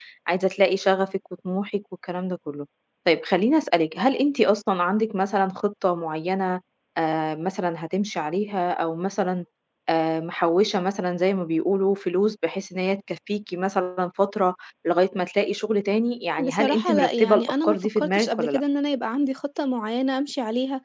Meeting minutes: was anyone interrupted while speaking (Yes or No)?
Yes